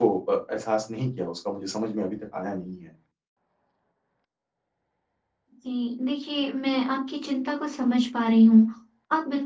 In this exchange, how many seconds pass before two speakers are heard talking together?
none

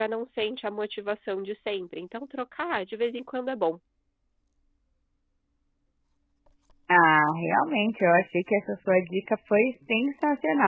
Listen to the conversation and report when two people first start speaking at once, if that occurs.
none

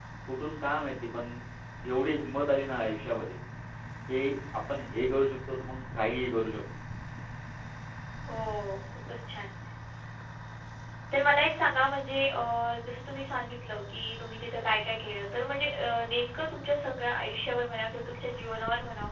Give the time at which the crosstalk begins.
none

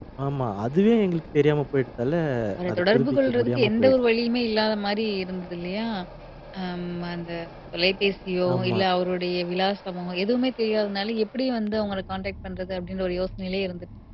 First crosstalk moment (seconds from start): 2.7 s

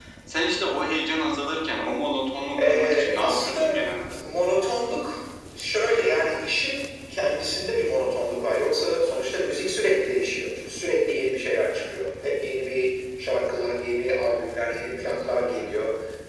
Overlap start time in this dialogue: 2.5 s

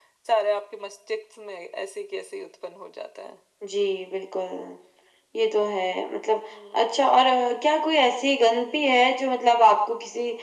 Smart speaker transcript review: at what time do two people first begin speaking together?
none

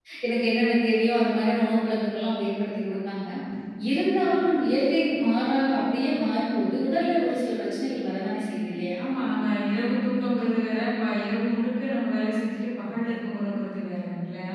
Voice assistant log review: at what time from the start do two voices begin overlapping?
none

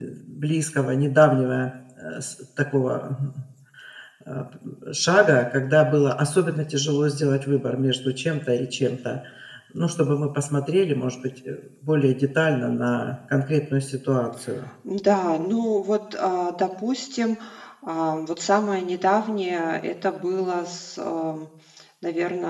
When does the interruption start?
none

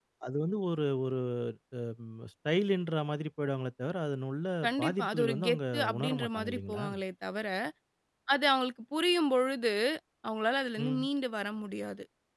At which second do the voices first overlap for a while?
4.6 s

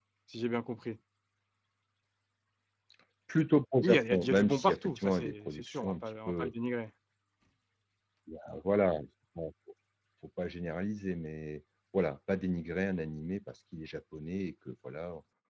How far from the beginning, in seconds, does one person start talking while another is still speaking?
3.8 s

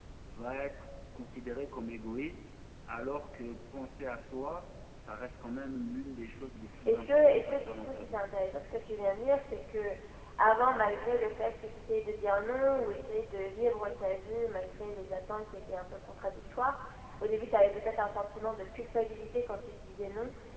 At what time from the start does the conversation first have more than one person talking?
6.6 s

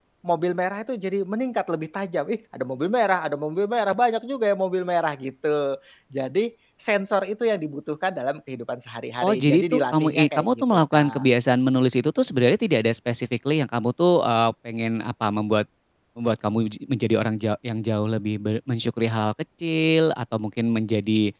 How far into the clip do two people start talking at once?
9.2 s

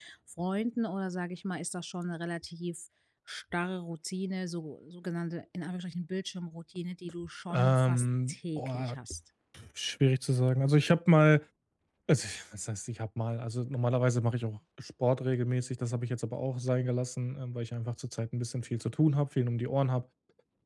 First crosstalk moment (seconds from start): 7.5 s

